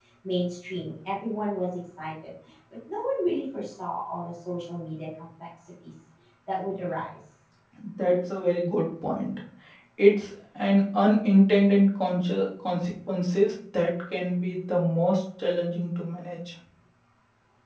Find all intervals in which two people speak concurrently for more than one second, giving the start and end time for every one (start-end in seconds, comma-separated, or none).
none